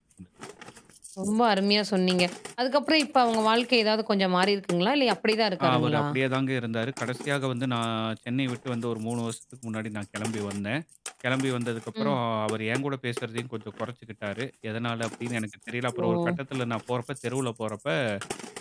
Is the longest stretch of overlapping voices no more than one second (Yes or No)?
Yes